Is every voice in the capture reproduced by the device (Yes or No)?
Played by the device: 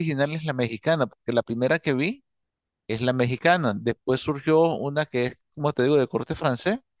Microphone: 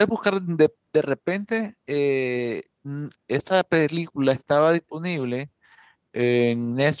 No